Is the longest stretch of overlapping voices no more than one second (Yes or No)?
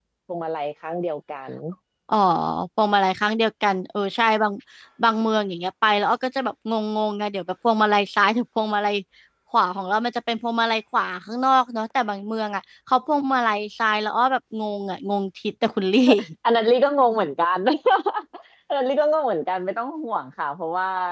Yes